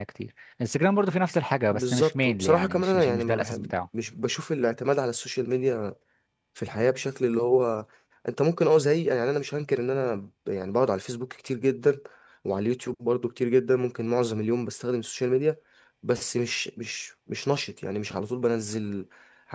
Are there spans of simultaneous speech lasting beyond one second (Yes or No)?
Yes